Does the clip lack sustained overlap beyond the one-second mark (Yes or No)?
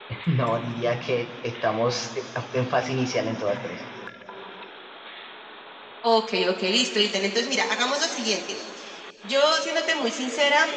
Yes